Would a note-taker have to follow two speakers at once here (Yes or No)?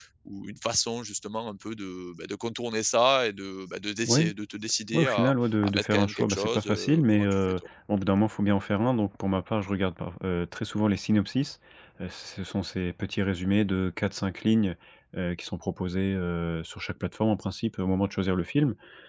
Yes